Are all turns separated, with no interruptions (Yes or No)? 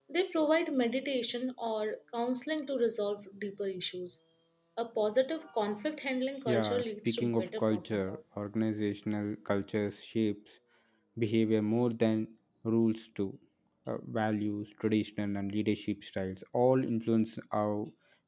No